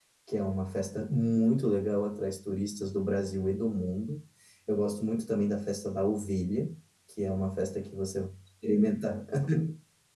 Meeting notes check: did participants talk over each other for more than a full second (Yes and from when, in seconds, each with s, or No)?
No